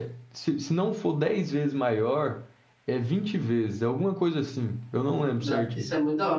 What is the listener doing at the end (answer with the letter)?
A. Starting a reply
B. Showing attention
A